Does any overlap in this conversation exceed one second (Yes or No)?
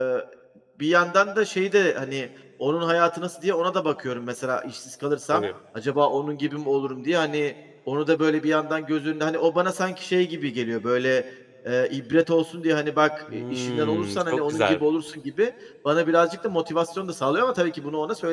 Yes